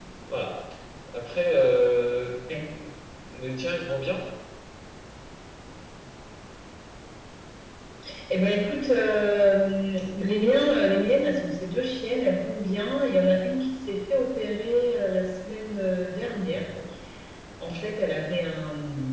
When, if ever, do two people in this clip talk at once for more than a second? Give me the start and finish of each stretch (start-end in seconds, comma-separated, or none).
none